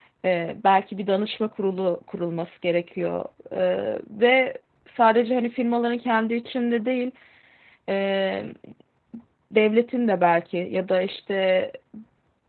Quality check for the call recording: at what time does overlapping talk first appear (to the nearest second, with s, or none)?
none